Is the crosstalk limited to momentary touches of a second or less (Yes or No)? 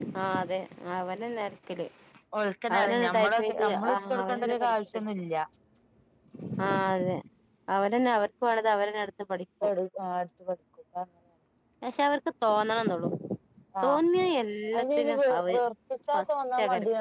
No